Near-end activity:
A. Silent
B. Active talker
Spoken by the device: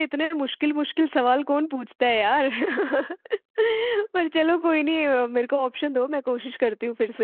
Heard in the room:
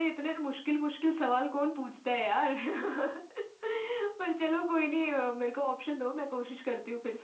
A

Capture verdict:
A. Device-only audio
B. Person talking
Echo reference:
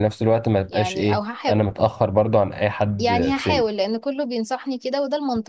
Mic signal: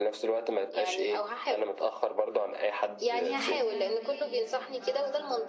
B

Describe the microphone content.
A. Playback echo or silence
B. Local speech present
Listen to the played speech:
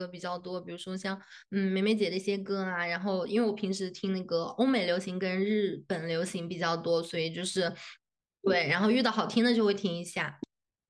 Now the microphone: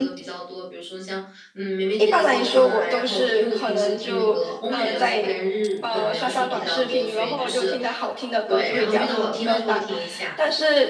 B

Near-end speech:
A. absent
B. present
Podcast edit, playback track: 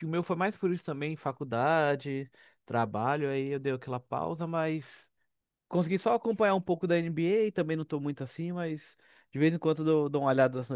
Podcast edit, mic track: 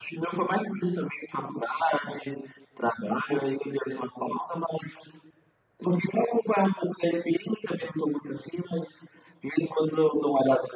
A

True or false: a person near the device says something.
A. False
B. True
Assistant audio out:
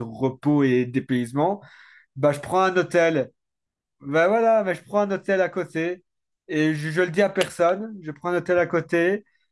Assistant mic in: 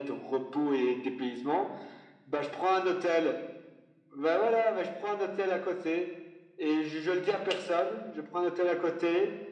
A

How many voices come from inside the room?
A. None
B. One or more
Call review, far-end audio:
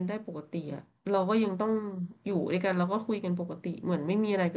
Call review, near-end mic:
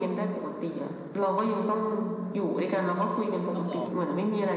B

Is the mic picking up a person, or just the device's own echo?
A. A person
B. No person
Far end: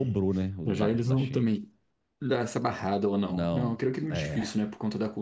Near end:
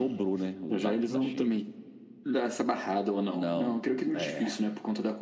B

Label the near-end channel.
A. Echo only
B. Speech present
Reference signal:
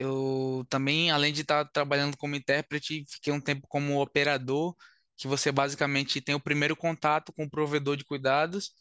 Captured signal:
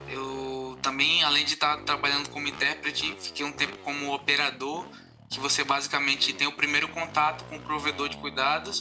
A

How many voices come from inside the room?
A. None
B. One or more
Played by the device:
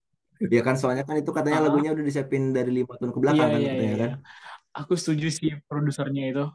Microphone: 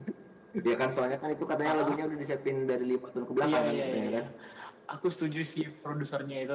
A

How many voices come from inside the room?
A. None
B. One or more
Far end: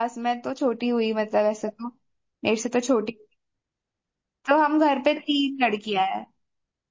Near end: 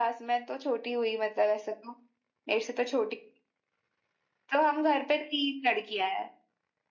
A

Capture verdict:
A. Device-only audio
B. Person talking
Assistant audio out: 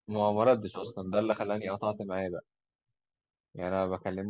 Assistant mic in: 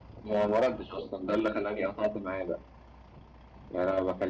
A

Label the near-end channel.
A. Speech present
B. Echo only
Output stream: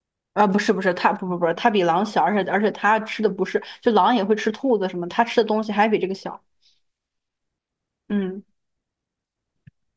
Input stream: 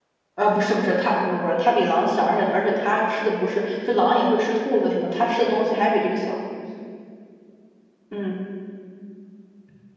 B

